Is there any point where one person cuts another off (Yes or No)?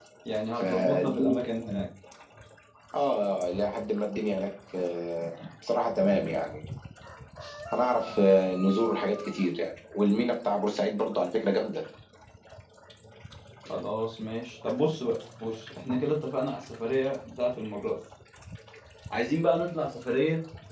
Yes